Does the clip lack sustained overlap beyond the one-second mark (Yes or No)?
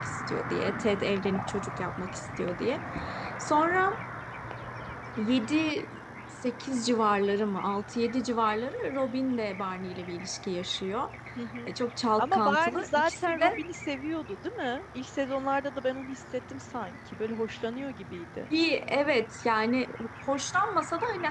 No